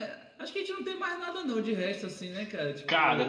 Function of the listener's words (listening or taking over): taking over